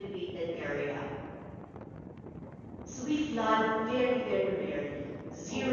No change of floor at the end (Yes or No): Yes